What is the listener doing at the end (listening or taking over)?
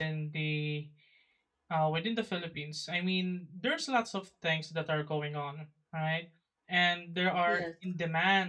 listening